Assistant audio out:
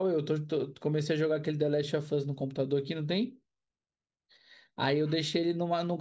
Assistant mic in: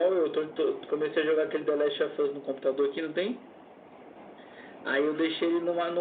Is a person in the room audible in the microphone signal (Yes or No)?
No